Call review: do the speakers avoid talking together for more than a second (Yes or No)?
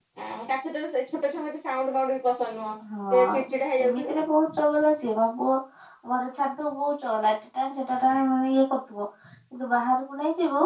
Yes